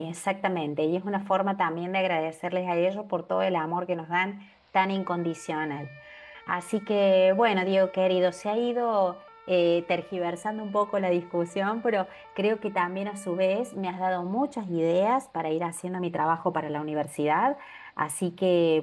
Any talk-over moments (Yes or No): No